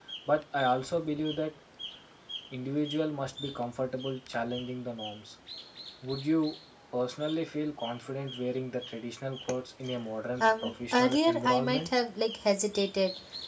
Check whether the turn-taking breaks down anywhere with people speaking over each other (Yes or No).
Yes